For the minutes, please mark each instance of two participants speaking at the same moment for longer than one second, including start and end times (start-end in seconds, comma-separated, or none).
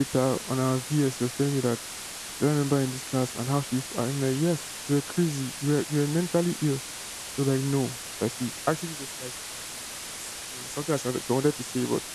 none